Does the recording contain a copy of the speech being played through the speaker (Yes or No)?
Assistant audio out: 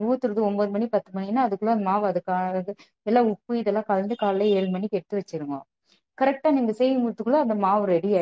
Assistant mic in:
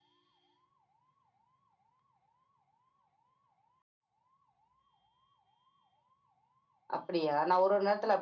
No